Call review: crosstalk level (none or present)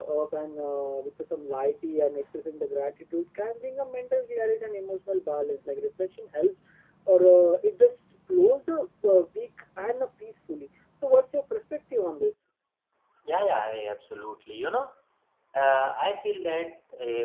none